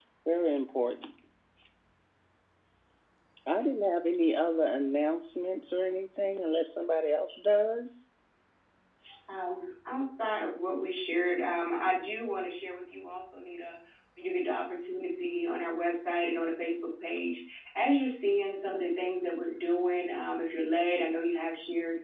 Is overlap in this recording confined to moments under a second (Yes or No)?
Yes